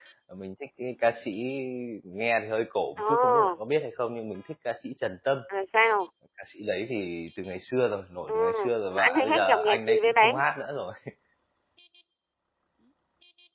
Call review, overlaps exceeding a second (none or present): present